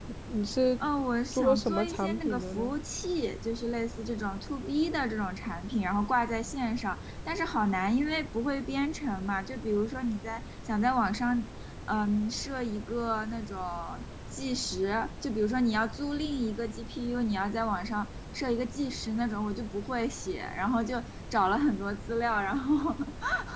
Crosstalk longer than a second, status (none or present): present